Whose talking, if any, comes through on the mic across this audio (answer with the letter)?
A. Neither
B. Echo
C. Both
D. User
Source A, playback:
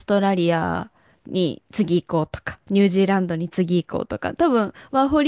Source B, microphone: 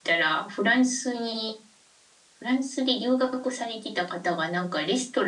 D